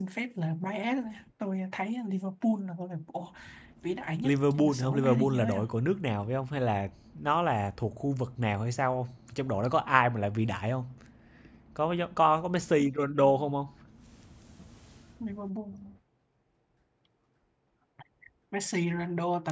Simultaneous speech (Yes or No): Yes